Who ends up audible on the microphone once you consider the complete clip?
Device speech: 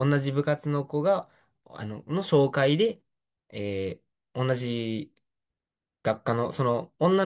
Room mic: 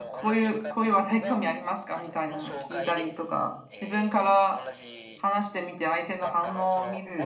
both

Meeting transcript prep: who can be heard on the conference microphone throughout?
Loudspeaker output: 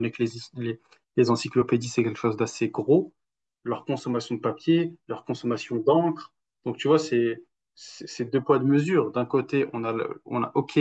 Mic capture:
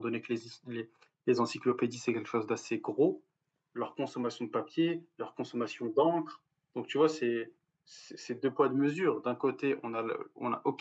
echo only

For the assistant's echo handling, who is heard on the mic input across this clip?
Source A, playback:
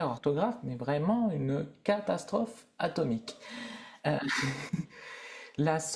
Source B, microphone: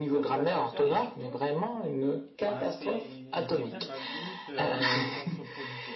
both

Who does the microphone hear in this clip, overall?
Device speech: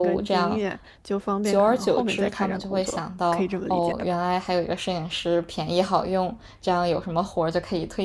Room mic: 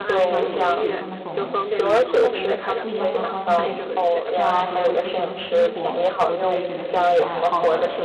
both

